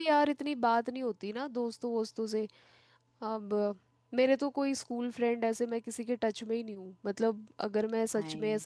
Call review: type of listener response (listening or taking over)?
listening